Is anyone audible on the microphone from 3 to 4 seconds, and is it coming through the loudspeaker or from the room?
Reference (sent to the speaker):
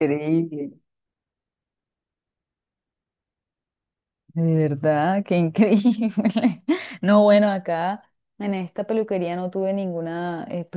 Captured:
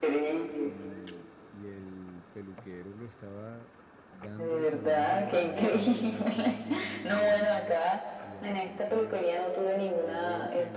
user only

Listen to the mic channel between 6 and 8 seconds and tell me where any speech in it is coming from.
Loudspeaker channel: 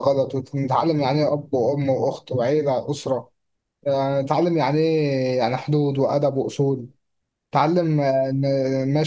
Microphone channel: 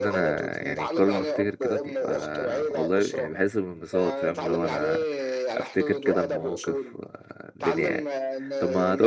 both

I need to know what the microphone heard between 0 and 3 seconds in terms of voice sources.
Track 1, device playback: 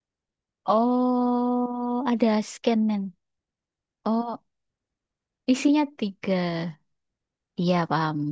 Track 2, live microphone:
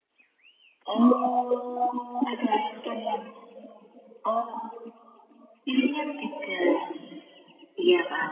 echo only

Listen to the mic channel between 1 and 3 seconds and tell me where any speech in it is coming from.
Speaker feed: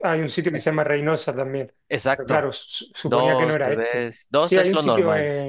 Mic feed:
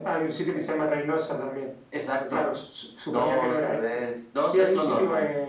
echo only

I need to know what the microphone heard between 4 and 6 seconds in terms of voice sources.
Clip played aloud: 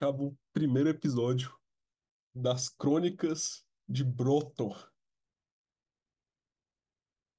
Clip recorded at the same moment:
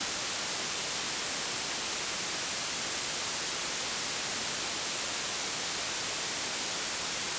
neither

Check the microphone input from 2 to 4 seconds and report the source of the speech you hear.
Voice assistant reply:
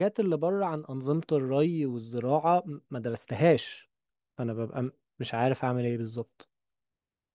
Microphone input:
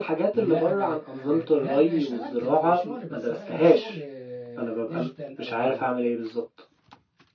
both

